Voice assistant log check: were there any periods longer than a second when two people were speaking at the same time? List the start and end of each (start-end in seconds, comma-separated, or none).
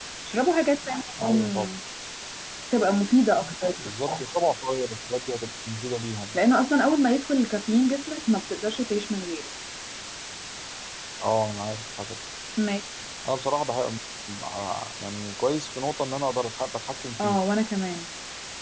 none